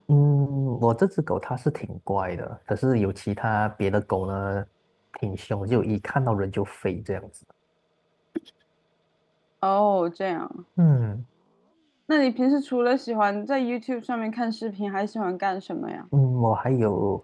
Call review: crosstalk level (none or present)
none